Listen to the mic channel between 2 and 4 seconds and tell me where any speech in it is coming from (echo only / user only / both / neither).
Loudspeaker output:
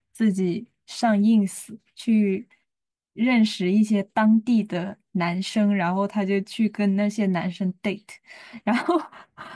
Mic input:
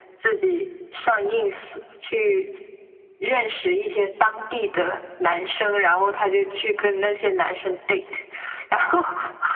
echo only